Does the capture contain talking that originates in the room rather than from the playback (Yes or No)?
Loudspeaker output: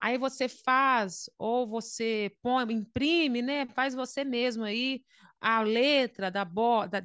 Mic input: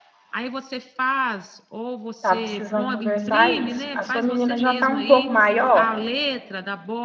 Yes